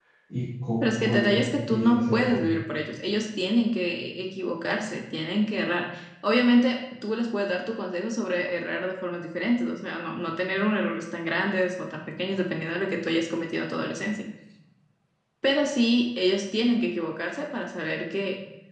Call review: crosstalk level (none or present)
present